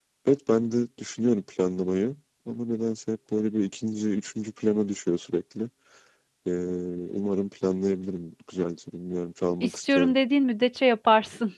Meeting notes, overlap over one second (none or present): none